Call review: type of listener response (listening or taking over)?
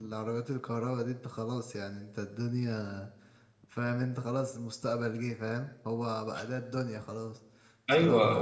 taking over